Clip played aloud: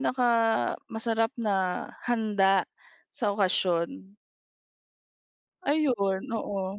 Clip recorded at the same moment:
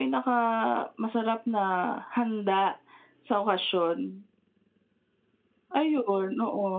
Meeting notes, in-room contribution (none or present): none